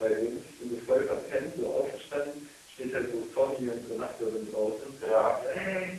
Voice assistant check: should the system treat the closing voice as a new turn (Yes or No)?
No